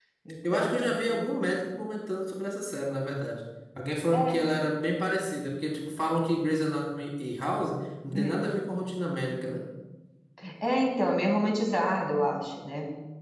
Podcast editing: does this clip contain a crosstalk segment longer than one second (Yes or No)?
No